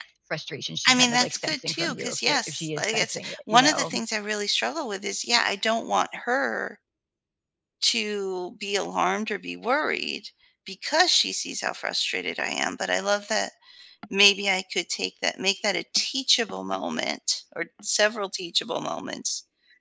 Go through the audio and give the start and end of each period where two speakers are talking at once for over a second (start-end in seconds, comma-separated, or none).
0.9-3.9